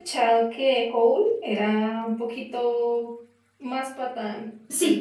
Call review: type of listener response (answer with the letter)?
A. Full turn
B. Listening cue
A